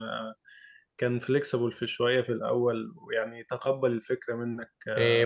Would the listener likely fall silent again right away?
No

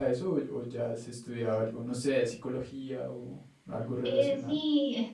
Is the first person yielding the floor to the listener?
Yes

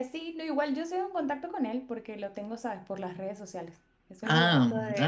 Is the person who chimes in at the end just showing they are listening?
Yes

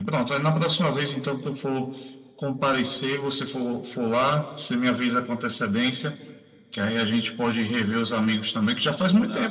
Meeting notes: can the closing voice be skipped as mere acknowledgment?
Yes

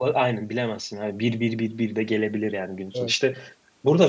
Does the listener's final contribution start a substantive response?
No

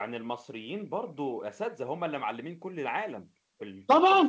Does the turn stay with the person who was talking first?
No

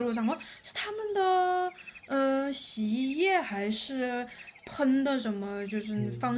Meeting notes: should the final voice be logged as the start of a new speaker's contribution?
Yes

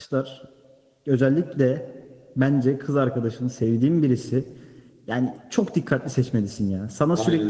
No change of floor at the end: Yes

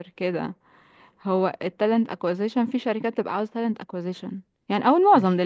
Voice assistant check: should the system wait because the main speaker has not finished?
Yes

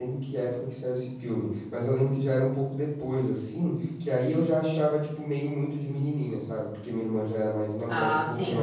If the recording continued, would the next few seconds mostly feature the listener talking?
No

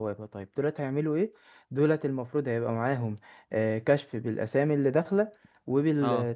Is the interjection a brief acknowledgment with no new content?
Yes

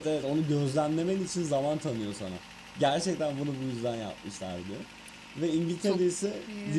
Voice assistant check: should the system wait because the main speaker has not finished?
Yes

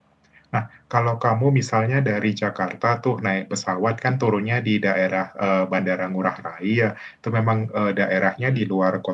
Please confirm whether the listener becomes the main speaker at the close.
No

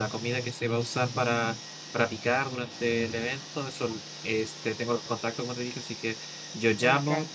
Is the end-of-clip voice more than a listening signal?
No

